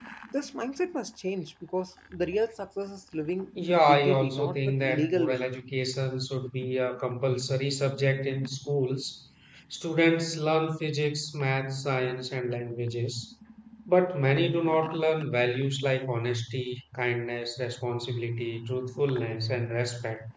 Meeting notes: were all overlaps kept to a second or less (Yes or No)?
No